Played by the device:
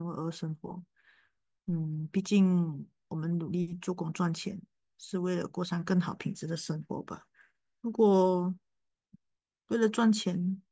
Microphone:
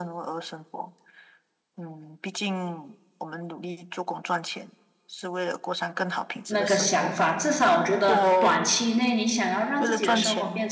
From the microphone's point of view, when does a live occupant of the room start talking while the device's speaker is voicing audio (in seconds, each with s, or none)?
6.5 s